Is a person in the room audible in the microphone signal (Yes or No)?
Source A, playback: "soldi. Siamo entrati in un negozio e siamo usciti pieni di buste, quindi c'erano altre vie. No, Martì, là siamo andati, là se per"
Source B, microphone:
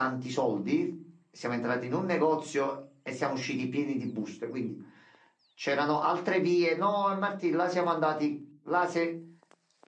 No